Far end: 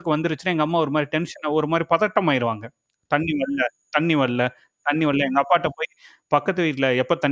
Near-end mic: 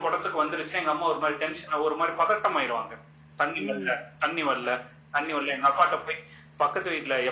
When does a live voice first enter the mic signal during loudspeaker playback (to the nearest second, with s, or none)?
4 s